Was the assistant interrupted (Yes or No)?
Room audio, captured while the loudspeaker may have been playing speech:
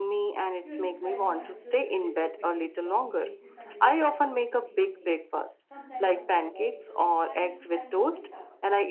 Yes